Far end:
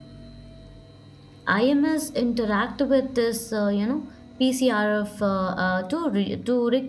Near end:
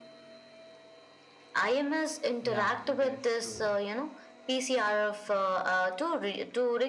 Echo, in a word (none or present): present